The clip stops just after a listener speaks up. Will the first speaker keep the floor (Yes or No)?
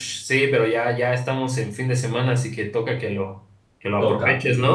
No